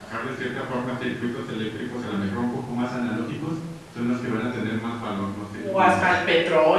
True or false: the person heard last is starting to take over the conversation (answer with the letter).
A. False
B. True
B